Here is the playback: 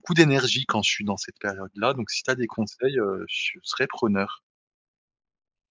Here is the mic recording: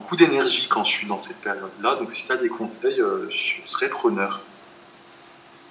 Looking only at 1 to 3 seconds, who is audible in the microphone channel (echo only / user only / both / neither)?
echo only